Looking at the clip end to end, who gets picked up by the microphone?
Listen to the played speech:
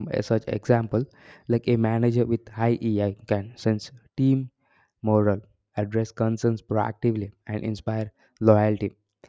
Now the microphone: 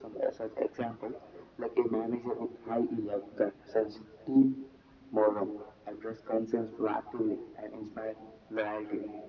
echo only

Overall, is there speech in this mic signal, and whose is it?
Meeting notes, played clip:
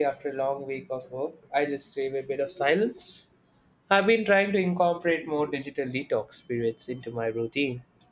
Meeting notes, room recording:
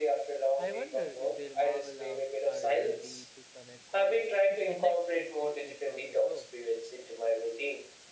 both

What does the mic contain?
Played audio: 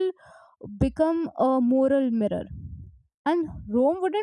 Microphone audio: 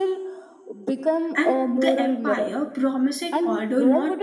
both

